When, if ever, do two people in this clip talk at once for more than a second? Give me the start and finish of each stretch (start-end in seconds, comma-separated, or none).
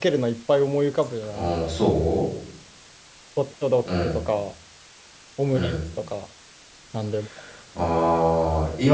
none